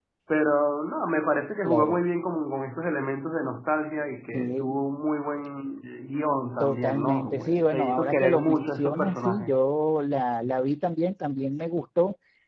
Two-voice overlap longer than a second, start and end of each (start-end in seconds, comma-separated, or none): 6.6-9.6